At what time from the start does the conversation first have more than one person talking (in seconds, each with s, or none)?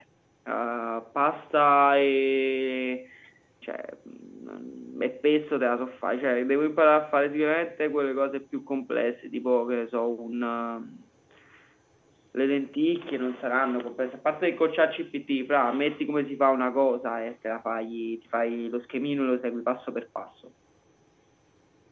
none